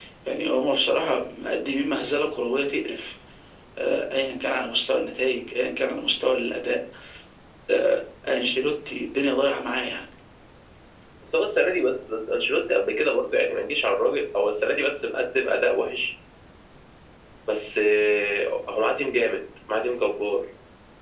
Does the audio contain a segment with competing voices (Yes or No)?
No